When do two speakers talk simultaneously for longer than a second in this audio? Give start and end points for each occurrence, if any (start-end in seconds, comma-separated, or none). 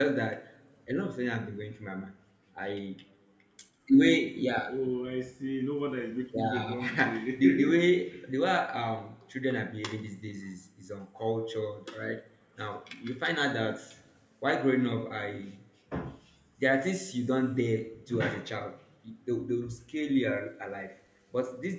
6.3-7.8